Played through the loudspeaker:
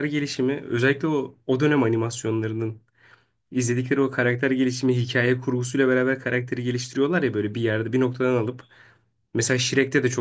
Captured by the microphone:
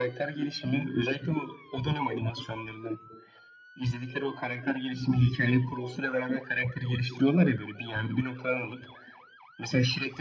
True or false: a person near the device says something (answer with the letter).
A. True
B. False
B